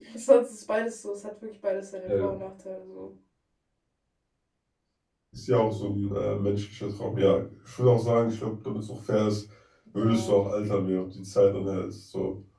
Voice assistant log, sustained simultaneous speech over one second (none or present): none